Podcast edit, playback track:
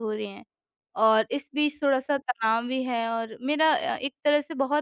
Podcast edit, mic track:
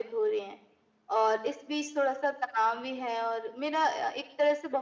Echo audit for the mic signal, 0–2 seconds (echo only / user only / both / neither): echo only